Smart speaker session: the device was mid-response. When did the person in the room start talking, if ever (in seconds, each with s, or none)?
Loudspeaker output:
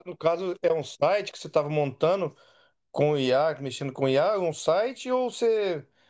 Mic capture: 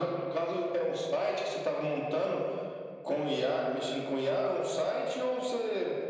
none